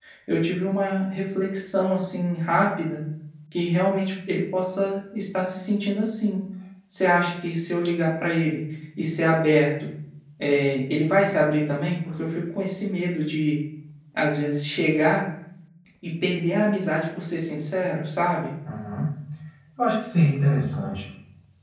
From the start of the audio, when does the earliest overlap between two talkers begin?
none

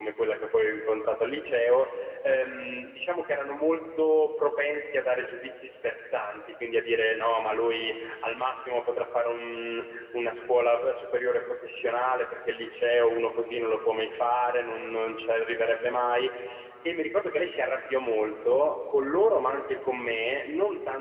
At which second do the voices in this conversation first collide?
none

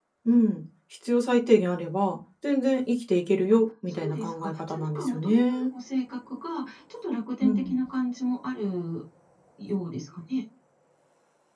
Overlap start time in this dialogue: 4 s

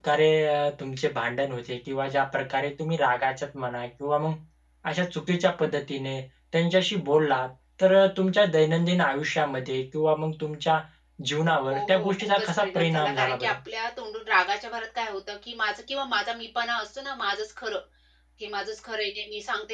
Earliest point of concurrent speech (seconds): 12 s

